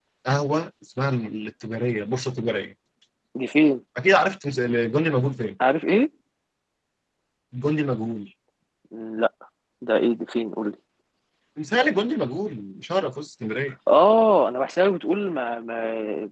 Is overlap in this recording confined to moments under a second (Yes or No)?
Yes